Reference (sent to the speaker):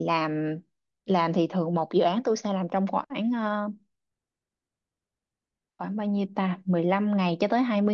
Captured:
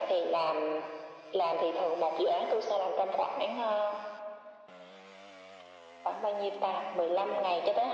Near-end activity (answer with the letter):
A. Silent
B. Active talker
A